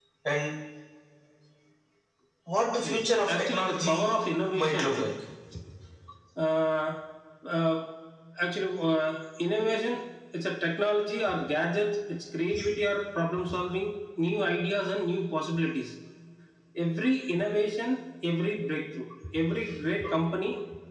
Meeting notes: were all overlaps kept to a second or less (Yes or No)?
No